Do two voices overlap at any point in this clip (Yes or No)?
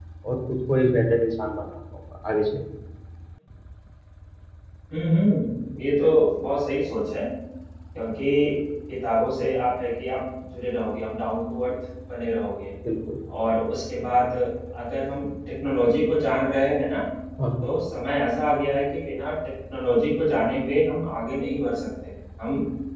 No